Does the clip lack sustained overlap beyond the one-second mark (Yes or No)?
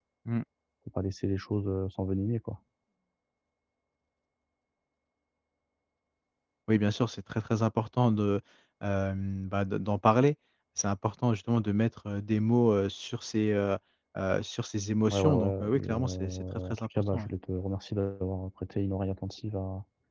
No